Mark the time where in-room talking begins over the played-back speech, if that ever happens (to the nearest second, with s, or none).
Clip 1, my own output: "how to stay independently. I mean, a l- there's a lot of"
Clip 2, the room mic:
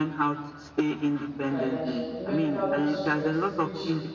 1 s